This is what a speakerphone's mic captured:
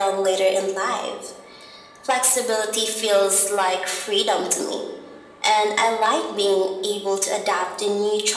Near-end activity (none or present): none